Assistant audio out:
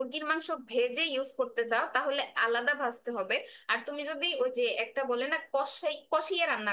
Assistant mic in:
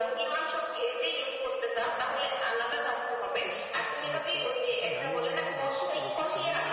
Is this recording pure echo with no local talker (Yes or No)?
No